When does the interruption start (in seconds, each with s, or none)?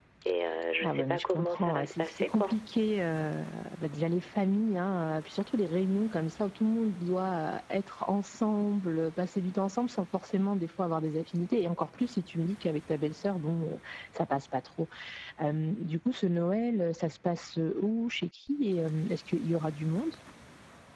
0.8 s